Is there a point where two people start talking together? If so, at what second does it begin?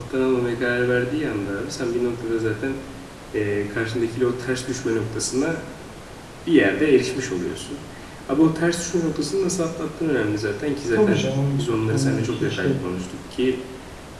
10.9 s

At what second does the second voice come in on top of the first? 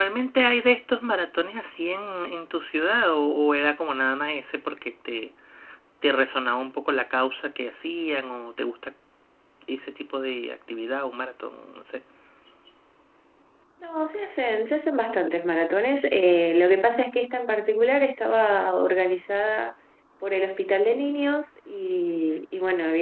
none

